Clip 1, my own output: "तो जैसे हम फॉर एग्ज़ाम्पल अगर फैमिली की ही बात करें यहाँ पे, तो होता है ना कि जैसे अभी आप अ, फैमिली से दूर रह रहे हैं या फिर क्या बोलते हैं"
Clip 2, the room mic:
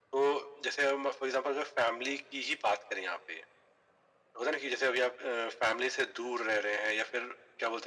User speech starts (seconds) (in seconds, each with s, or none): none